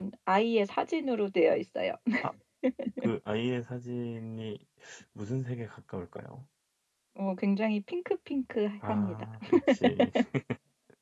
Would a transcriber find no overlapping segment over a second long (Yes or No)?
Yes